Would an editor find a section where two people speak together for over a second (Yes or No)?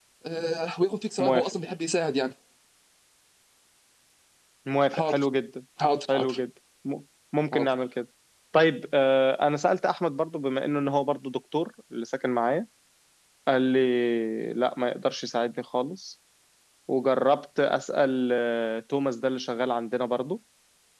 No